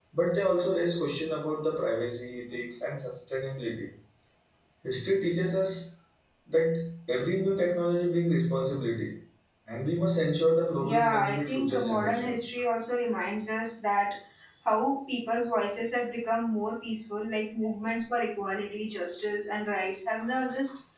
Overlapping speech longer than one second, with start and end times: 10.8-12.4

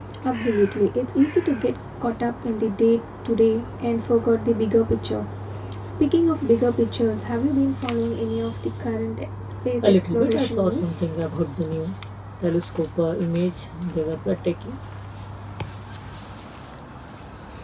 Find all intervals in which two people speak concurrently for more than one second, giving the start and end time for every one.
9.8-11.1

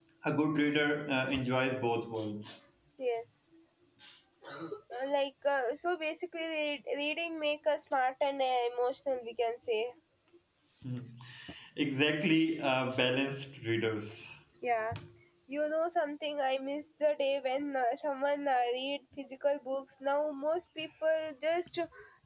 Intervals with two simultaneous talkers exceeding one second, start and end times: none

